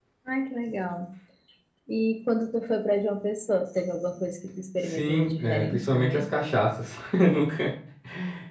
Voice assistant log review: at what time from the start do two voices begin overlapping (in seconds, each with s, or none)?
4.8 s